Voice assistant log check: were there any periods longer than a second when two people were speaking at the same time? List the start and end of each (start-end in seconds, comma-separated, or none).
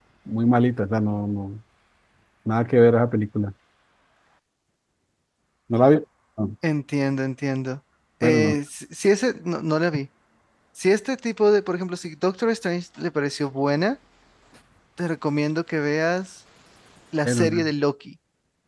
none